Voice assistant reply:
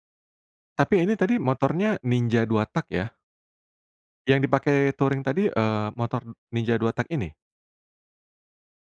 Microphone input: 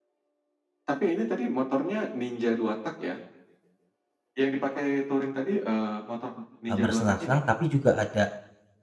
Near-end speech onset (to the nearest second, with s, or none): 7 s